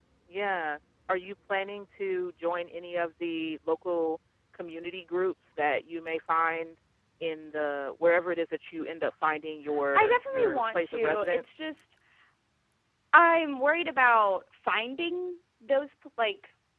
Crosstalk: present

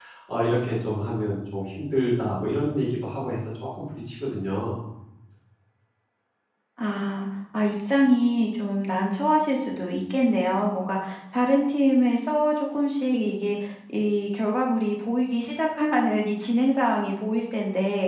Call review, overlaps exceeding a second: none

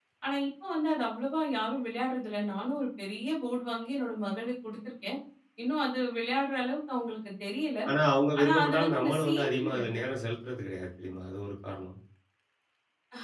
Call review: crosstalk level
present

